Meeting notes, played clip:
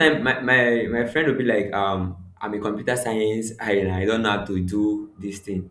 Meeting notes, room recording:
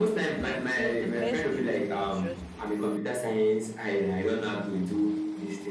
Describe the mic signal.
both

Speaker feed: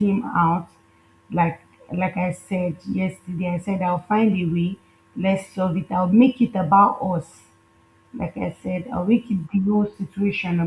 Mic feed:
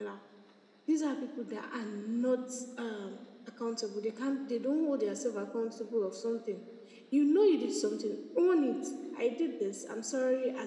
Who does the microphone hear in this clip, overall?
user only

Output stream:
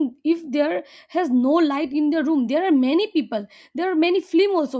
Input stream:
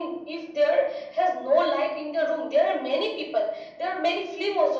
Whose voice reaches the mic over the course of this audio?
echo only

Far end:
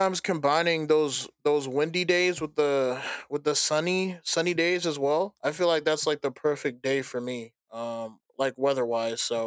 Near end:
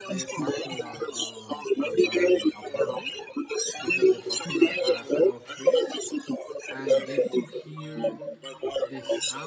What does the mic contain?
both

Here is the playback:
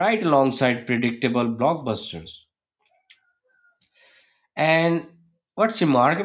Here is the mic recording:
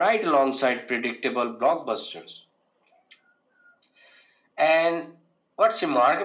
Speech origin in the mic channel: echo only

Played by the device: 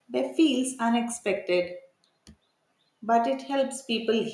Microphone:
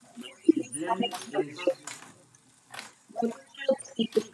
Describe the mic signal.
both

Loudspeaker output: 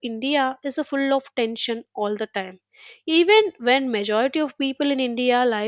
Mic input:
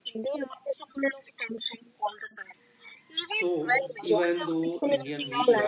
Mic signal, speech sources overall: both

